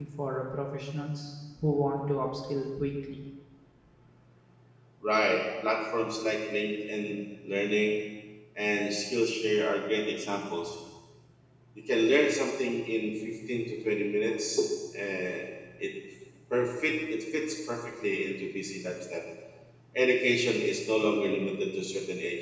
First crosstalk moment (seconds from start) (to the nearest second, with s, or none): none